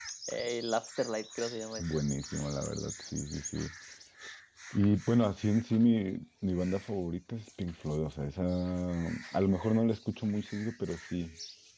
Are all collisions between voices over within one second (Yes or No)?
Yes